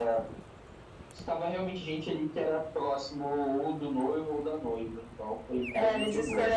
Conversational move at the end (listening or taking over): taking over